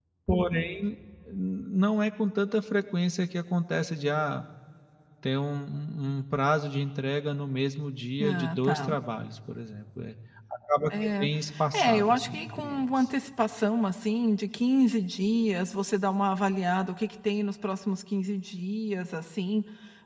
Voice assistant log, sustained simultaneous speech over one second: present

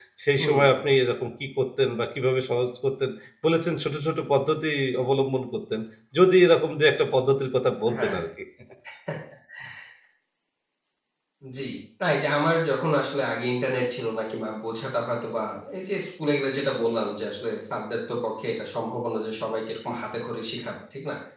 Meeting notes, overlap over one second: none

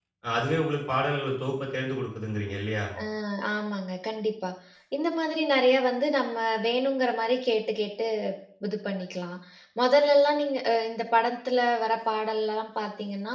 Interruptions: none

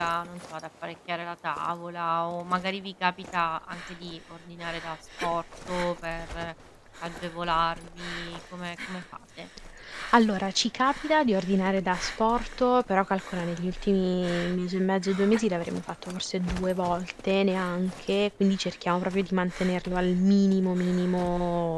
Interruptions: none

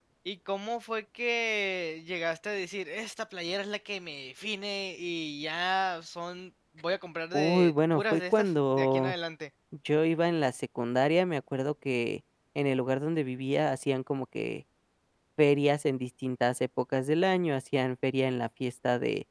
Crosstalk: present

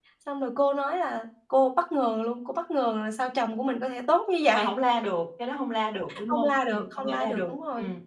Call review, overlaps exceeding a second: present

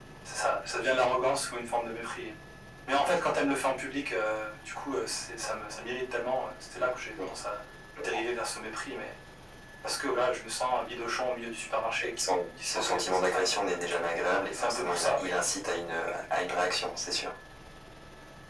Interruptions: present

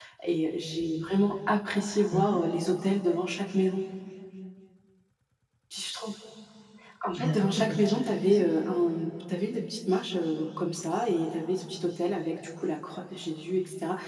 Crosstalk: present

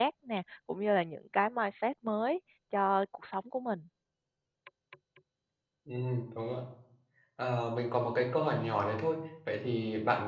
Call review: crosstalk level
none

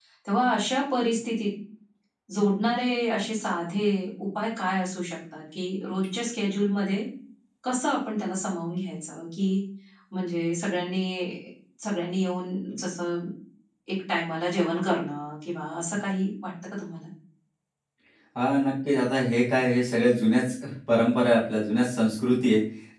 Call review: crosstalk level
none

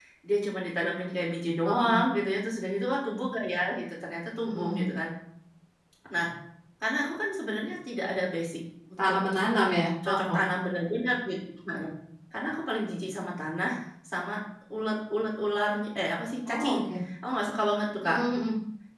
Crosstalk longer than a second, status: none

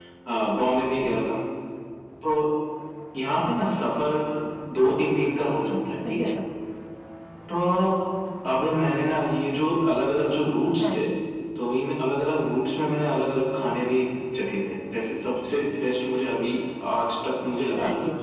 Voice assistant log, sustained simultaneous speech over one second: none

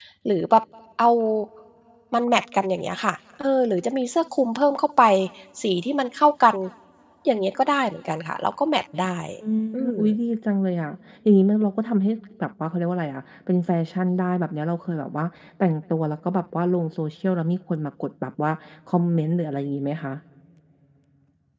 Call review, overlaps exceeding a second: none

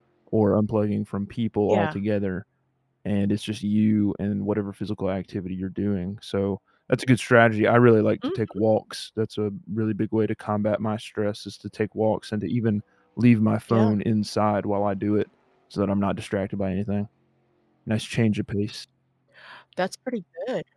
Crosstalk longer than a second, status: none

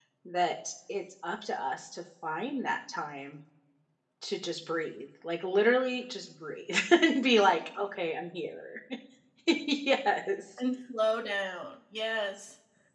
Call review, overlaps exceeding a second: none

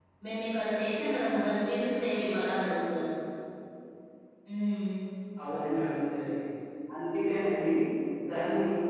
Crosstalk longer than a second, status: none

